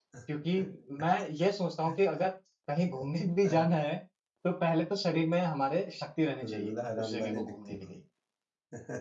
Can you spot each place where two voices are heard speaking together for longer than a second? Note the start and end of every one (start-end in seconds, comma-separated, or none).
6.4-7.8